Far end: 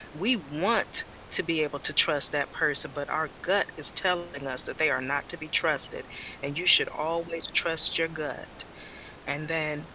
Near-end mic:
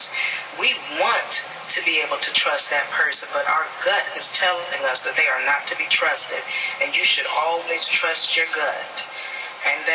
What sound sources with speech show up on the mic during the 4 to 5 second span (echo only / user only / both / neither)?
echo only